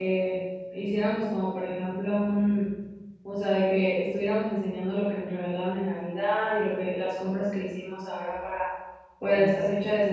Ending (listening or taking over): listening